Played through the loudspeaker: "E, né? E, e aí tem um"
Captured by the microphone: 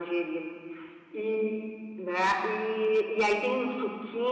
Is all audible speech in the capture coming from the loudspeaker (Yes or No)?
Yes